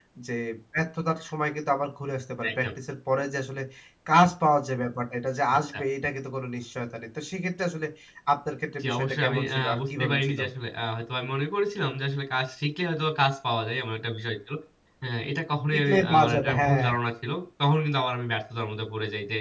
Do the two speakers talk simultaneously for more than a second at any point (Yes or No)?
Yes